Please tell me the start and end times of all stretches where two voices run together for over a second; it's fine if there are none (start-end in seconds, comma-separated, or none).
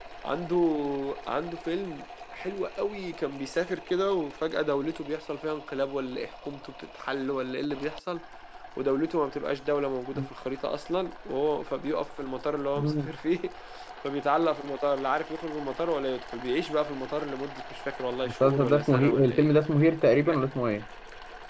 18.2-19.5